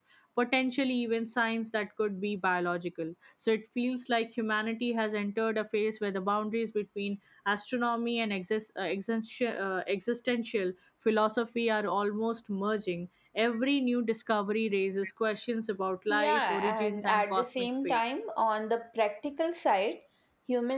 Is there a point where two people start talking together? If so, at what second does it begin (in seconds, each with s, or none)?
16.1 s